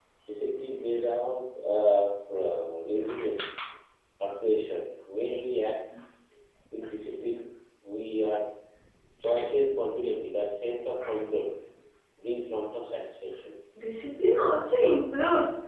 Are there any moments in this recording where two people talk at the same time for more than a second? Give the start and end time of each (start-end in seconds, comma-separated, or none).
none